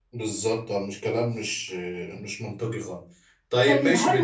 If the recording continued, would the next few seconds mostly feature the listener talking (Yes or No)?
Yes